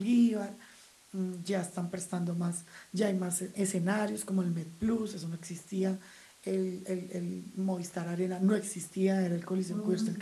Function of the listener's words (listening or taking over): listening